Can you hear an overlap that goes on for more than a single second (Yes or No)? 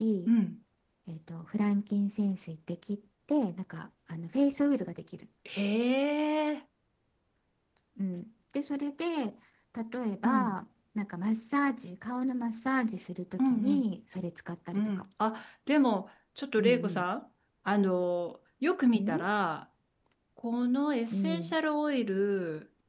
No